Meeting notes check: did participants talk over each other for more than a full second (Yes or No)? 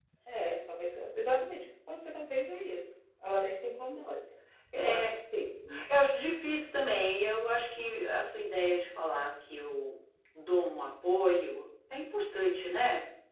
No